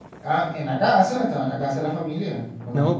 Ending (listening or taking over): taking over